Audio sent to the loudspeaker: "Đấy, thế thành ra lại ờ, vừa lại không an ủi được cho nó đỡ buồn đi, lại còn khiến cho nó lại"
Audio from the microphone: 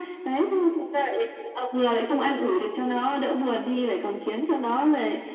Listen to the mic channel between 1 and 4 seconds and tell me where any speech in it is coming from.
echo only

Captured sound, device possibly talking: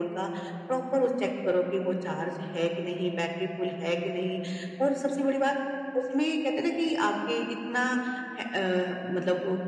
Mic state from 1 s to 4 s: echo only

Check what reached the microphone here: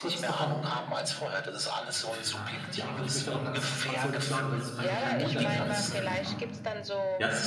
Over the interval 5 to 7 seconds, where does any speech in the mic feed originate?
both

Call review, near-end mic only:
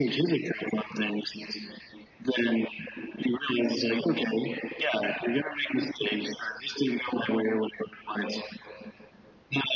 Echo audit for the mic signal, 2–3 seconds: echo only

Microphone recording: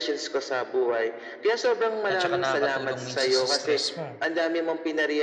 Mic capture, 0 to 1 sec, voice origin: echo only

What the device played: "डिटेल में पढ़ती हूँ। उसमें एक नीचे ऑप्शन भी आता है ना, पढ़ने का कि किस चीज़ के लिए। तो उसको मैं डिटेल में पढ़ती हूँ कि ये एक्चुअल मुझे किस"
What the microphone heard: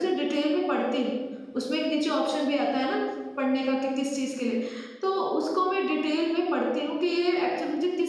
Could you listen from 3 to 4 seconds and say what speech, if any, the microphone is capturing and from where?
echo only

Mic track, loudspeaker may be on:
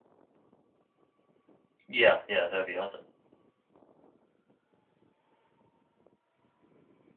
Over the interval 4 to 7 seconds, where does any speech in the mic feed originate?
neither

